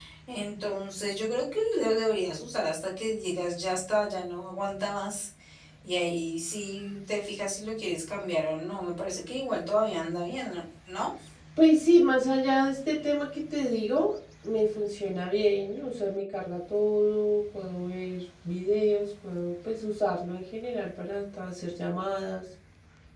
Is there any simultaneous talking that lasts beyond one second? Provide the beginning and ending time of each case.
none

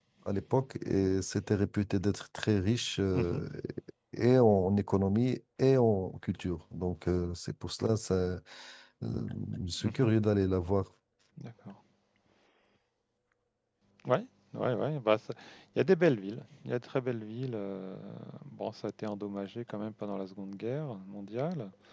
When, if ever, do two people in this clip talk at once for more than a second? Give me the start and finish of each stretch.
none

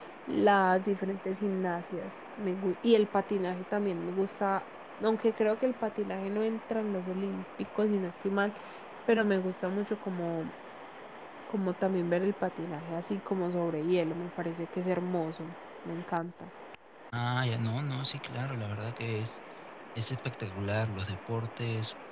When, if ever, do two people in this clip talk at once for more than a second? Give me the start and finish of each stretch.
none

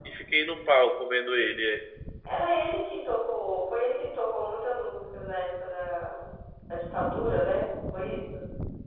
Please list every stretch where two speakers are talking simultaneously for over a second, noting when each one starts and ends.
none

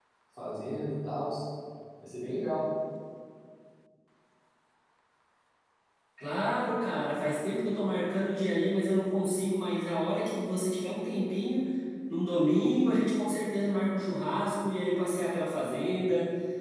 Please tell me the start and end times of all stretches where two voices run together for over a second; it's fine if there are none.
none

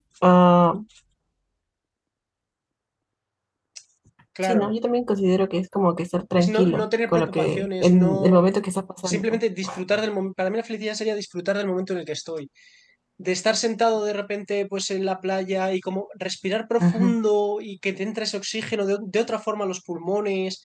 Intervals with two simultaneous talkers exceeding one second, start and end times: 6.4-8.4

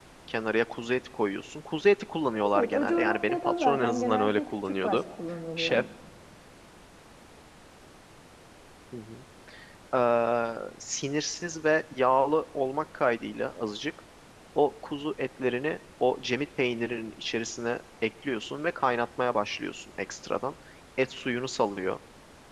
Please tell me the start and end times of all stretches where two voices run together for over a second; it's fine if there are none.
2.5-5.0

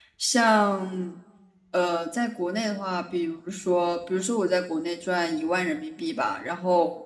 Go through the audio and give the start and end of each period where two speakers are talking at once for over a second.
none

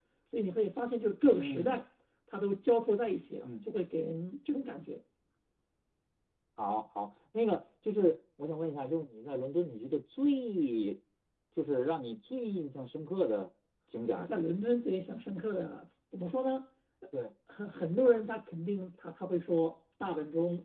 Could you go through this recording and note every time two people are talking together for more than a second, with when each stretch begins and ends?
none

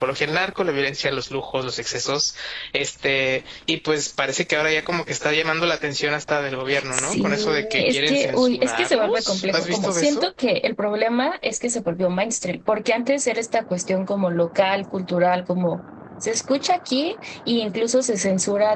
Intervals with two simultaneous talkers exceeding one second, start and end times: 6.9-10.3

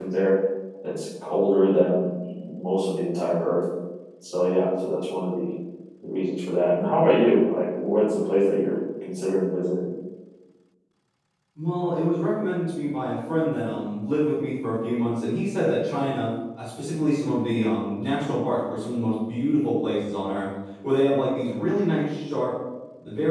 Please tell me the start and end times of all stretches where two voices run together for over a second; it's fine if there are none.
none

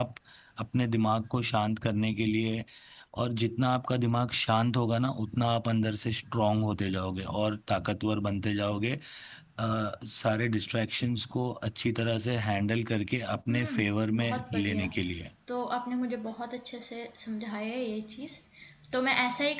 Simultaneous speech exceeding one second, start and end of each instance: 13.5-14.9

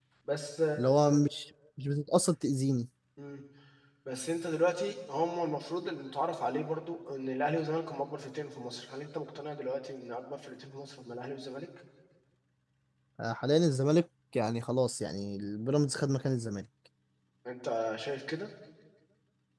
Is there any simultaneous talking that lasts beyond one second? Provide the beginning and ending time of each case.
none

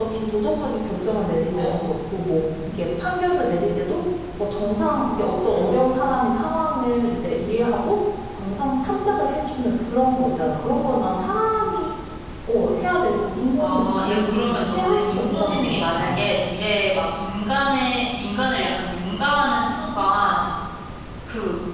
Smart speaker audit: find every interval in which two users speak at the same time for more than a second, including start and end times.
13.6-16.2

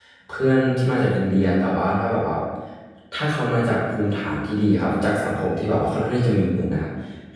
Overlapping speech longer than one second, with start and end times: none

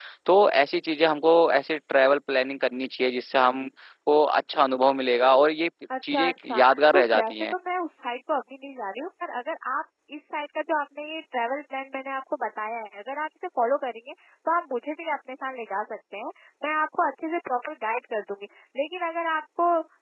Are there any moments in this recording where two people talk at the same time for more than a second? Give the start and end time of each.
6.1-7.5

